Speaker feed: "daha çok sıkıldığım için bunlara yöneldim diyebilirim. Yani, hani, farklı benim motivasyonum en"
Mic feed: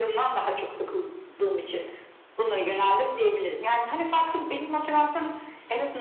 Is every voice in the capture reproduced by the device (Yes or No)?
Yes